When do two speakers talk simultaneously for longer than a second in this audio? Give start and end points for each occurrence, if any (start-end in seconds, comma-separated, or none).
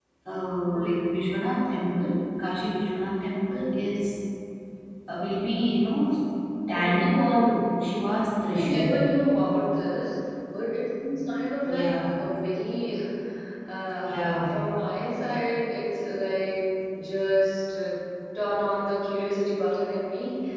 6.7-7.9